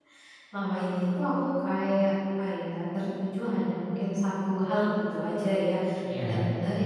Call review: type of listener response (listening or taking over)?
listening